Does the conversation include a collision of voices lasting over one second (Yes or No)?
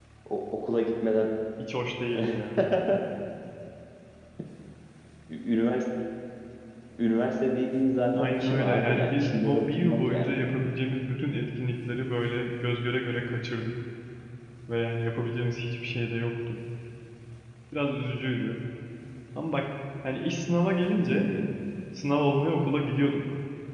Yes